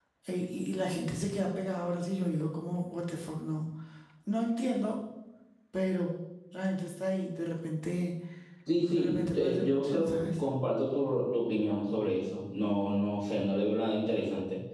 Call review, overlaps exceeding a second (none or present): present